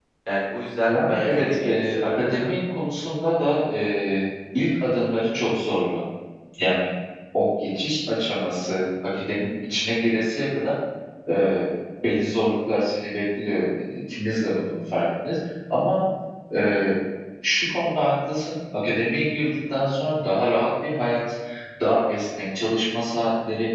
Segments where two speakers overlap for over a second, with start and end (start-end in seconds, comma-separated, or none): 0.9-2.5